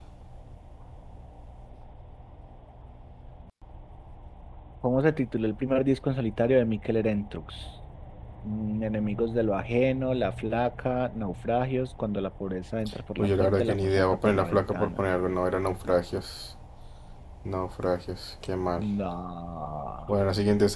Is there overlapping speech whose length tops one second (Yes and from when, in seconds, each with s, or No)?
Yes, from 13.2 s